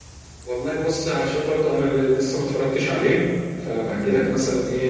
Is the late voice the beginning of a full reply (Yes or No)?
No